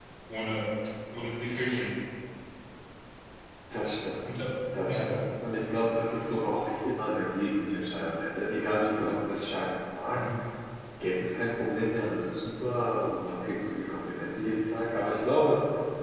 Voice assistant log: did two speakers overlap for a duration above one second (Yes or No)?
No